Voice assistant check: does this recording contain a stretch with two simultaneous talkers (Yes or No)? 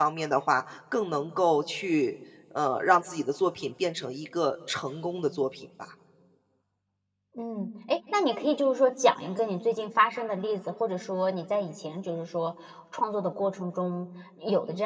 No